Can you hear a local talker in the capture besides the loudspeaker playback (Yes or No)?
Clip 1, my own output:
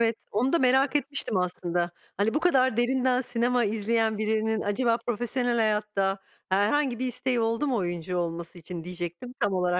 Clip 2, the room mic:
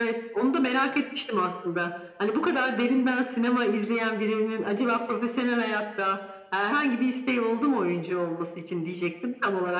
No